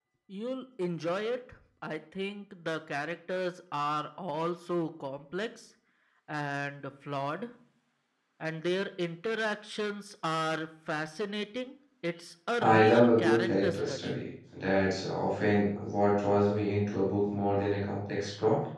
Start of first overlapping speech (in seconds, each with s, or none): 12.6 s